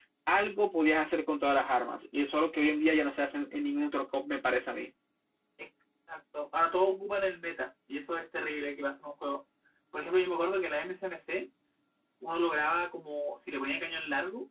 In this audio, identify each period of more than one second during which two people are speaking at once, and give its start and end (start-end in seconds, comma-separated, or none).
none